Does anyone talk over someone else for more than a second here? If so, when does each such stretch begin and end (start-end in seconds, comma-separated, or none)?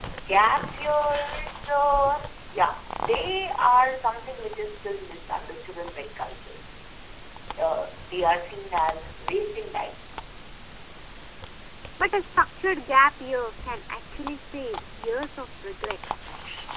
none